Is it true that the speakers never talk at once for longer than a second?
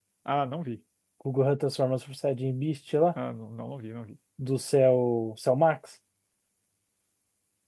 Yes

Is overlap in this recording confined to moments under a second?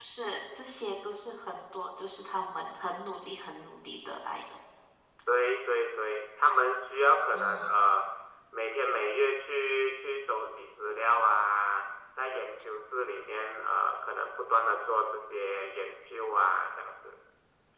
Yes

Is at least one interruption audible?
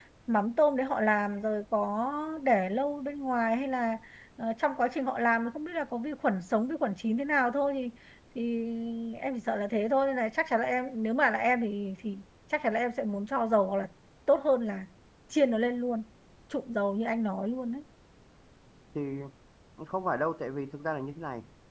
No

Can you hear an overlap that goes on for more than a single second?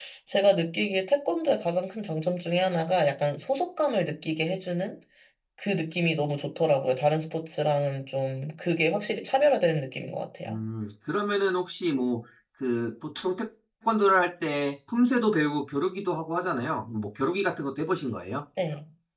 No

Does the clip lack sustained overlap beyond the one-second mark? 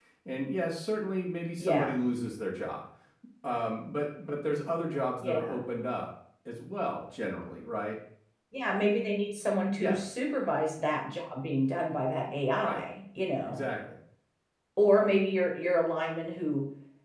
Yes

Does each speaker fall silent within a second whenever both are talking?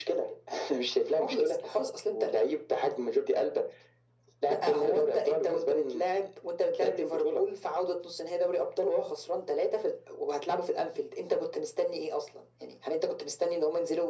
No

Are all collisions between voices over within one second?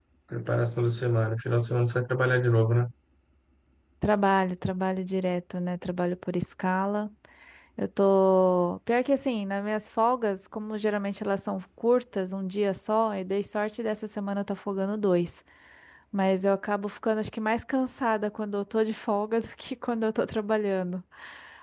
Yes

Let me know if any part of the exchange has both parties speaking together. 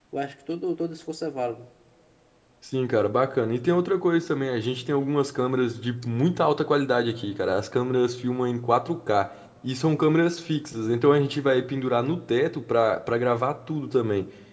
No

